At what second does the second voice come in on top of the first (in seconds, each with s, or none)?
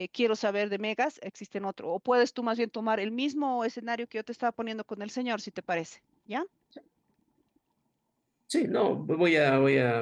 none